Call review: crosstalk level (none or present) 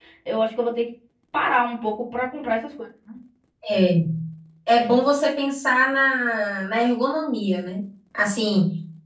none